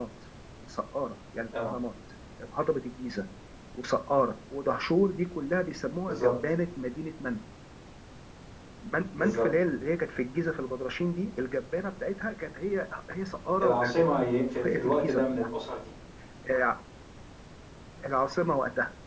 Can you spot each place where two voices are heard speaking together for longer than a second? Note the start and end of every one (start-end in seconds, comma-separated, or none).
13.6-15.5